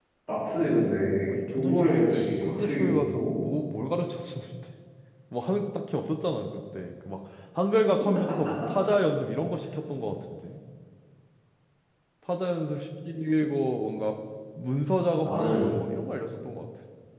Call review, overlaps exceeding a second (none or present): present